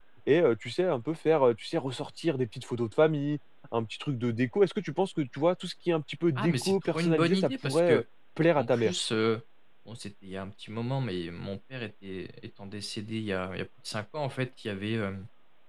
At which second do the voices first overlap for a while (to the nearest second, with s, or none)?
6 s